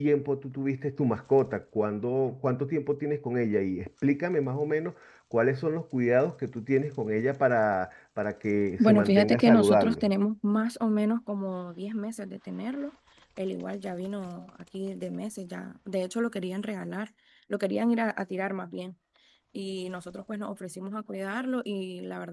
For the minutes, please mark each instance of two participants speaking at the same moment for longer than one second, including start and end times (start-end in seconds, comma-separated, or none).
8.8-10.1